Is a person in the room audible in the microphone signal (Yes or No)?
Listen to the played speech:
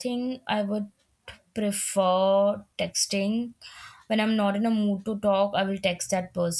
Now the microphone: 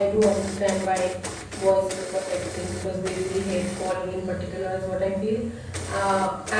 Yes